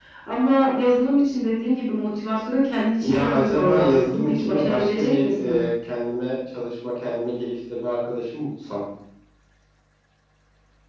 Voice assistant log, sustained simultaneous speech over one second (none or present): present